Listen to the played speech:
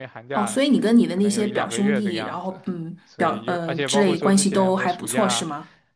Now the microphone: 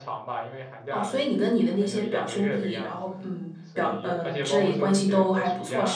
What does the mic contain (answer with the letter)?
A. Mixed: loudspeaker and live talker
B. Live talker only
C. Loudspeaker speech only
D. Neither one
C